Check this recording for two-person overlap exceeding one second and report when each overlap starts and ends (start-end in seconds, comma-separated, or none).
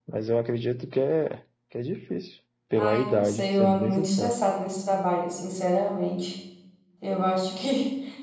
2.8-4.4